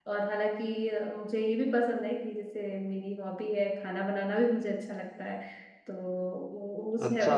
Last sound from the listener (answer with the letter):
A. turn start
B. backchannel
A